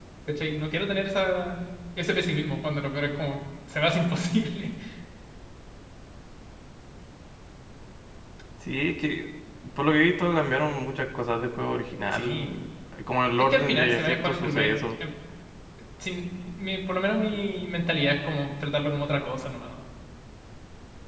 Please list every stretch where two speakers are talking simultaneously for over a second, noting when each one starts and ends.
13.4-14.7

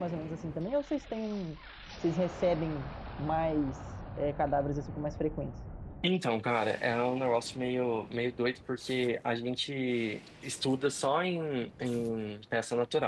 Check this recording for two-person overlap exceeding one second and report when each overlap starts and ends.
none

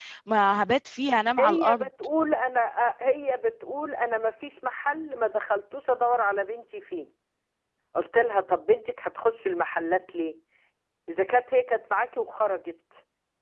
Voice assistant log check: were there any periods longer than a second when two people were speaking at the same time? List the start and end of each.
none

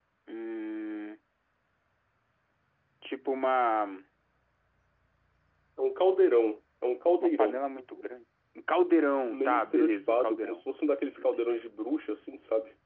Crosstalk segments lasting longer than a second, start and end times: 9.3-10.6

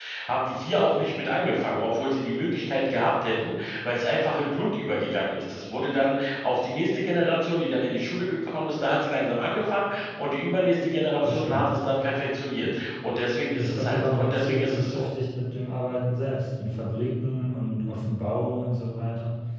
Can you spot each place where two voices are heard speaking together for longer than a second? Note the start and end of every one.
13.6-15.0

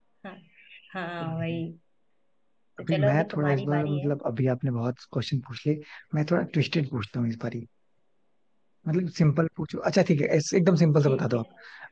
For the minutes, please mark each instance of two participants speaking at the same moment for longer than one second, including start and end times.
2.8-4.1

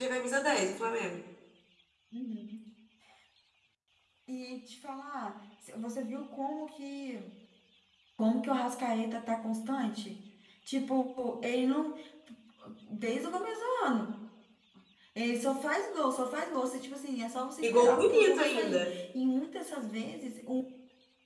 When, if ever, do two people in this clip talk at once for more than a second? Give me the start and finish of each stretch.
17.6-18.9

